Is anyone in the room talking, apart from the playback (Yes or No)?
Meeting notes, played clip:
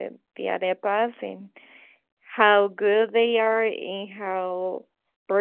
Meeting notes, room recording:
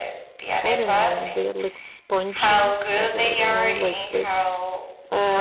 Yes